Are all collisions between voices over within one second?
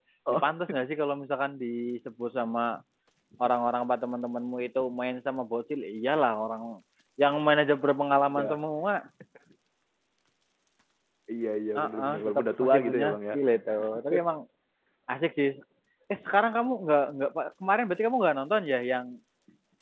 No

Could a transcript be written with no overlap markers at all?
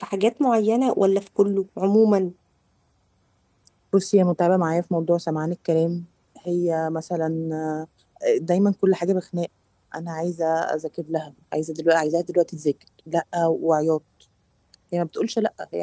Yes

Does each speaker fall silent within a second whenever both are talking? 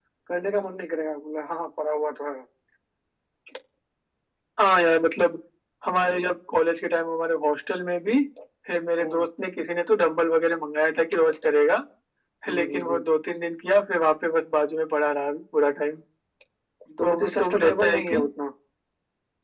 No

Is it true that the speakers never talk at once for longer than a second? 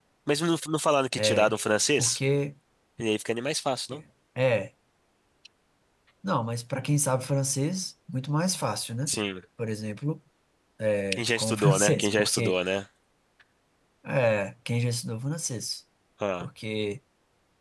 No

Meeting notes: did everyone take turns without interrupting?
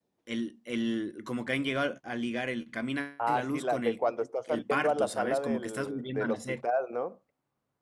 No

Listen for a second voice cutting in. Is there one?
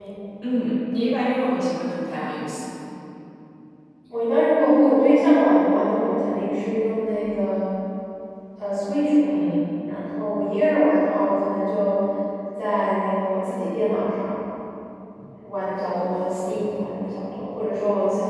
No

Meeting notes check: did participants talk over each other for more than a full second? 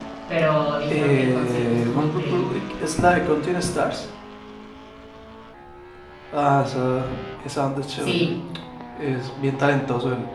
Yes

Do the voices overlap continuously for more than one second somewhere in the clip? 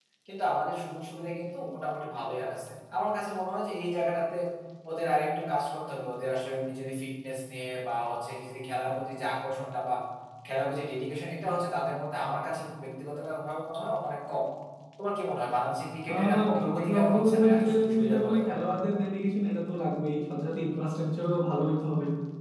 Yes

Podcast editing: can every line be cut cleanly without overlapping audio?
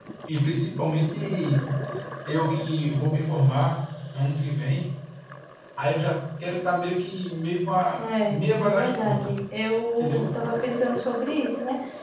No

